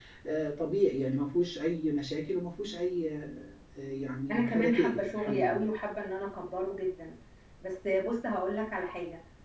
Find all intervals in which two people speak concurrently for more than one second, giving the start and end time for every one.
4.3-5.7

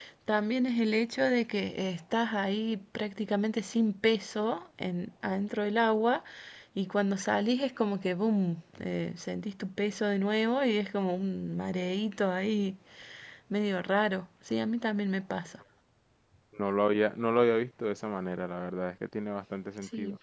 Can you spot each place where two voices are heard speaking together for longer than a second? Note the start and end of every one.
none

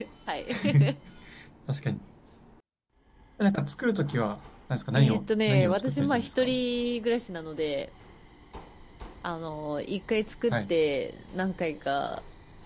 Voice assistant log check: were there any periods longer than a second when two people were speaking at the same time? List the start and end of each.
5.0-6.5

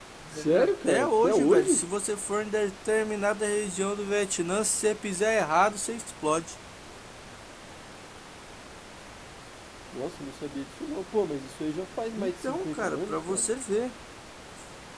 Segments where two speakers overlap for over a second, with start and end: 0.5-1.8, 12.2-13.5

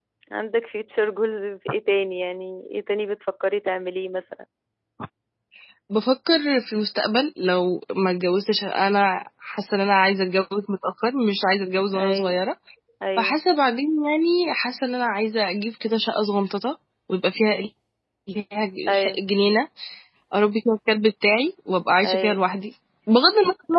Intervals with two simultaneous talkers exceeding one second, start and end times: none

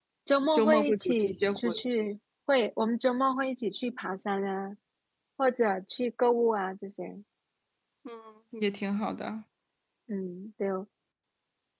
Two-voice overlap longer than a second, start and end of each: 0.6-1.8

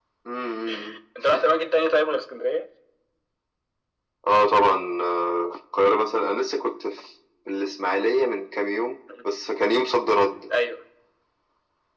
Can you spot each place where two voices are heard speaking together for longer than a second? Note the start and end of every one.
none

